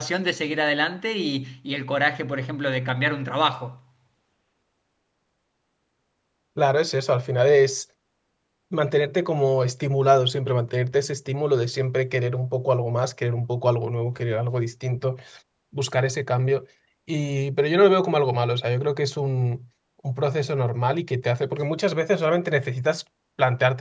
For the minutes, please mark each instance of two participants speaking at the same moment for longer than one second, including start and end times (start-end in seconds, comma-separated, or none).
none